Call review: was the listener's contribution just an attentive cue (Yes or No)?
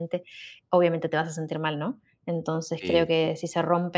Yes